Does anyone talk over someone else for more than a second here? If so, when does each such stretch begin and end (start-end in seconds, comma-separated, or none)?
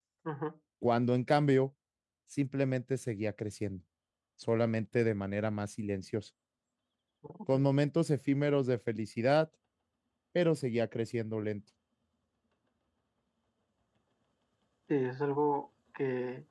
none